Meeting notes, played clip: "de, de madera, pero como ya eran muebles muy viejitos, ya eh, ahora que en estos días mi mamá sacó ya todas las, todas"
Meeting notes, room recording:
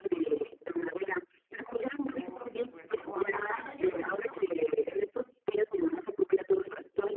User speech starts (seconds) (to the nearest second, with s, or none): 2 s